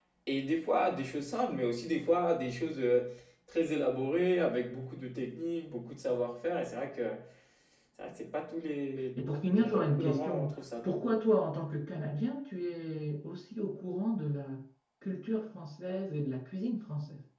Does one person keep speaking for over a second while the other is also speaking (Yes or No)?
Yes